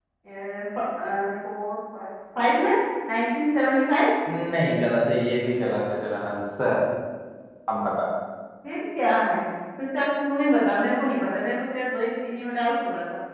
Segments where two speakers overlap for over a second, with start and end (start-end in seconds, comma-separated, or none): none